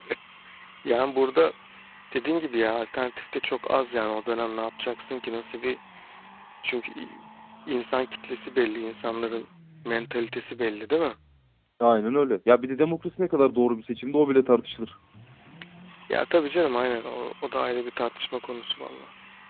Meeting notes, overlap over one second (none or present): none